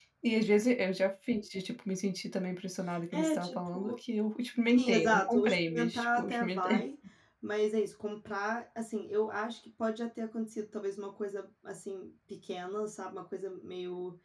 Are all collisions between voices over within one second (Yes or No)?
No